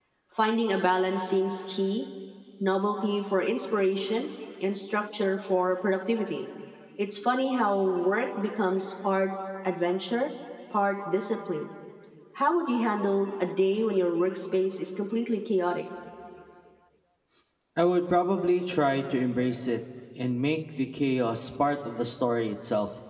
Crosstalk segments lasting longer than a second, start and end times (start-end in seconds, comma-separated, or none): none